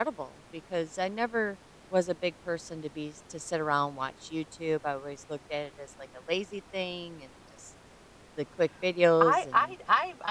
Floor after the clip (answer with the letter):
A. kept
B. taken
B